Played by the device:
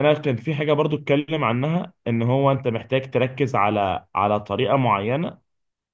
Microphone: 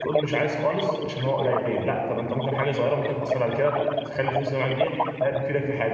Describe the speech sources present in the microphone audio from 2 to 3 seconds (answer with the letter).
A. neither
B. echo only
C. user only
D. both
D